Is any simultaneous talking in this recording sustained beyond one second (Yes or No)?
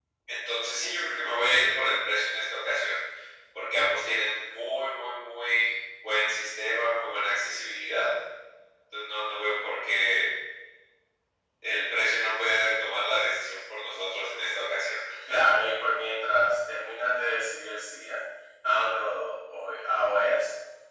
No